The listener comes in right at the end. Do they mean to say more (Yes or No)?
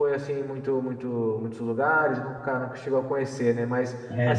No